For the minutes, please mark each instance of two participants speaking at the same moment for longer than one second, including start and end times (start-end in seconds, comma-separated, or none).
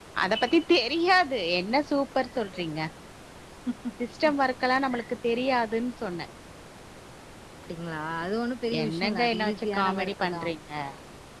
8.8-10.4